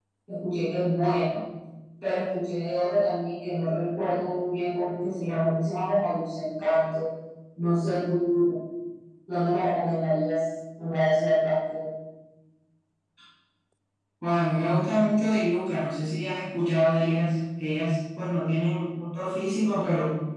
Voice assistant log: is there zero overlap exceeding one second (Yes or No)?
Yes